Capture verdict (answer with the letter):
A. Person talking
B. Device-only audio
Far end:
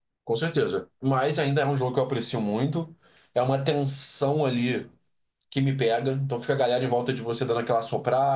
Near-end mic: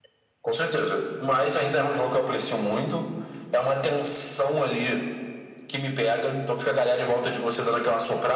B